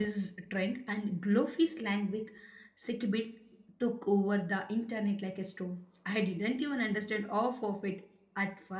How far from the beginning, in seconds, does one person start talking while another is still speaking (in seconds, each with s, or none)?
none